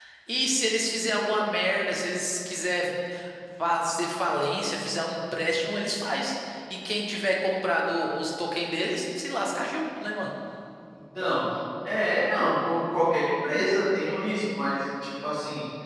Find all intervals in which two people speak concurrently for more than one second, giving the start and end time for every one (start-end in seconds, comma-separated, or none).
none